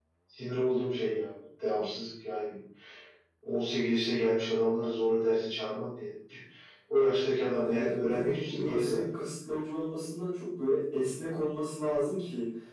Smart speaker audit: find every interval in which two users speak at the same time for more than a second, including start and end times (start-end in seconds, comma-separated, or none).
7.6-9.0